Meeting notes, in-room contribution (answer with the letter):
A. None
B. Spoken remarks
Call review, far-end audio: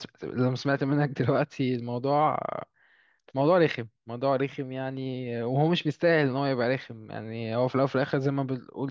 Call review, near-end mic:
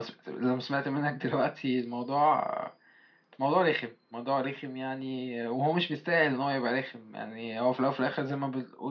A